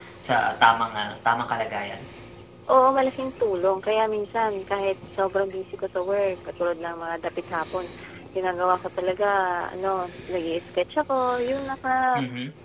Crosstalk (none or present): none